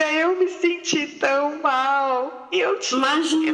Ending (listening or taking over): listening